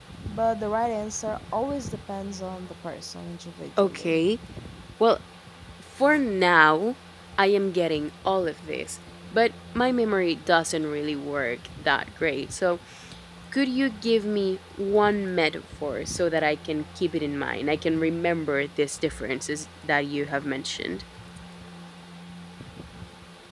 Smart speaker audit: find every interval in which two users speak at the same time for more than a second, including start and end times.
none

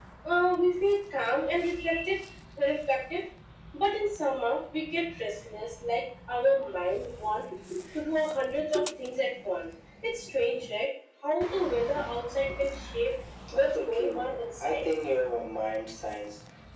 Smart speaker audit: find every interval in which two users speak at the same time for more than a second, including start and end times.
13.5-14.8

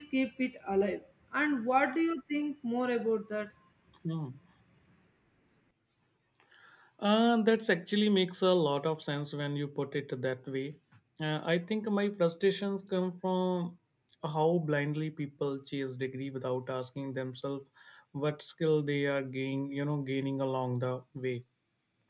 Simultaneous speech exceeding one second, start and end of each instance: none

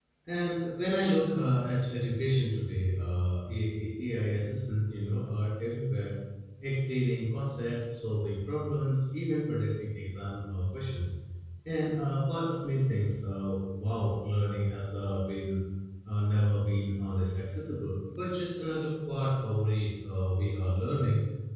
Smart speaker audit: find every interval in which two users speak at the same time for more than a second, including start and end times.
none

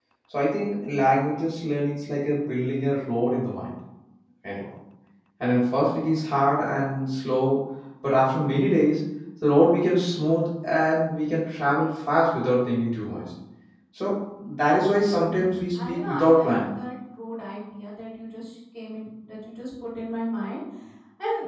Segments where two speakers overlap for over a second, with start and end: 15.3-16.6

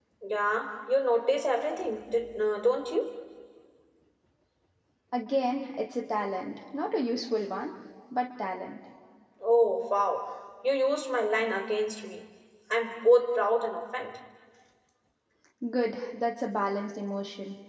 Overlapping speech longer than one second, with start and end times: none

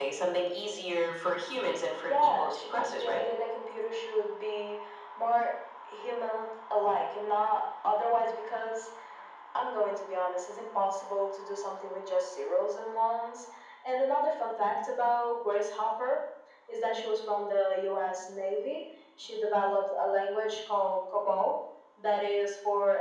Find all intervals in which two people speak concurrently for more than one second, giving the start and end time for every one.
2.0-3.2

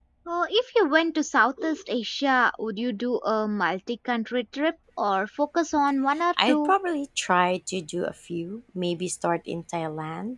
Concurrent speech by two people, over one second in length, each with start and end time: none

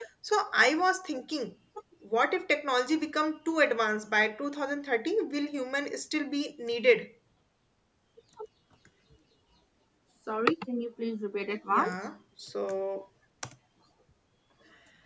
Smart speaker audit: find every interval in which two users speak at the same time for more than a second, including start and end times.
none

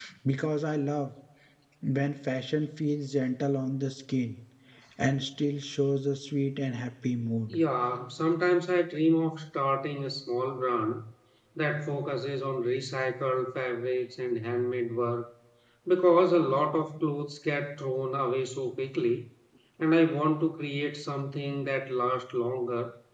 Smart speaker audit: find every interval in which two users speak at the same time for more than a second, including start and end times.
none

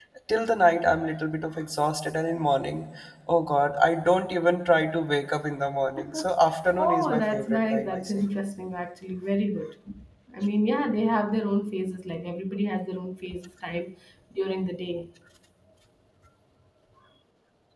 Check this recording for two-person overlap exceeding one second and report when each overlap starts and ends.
6.8-8.2

